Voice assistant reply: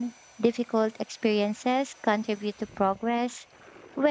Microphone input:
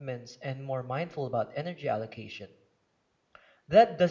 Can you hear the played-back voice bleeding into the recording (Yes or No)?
No